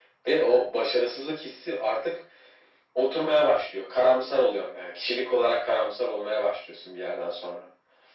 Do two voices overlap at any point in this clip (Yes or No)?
No